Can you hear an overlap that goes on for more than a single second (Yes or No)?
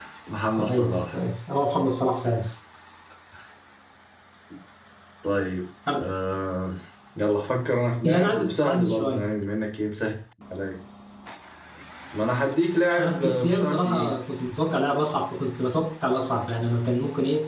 Yes